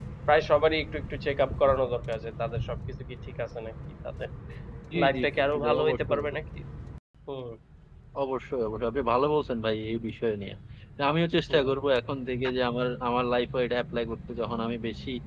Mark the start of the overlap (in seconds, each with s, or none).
5.0 s